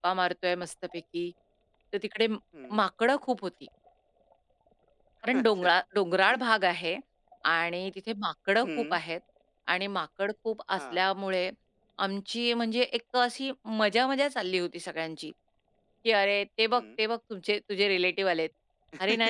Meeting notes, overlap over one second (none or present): none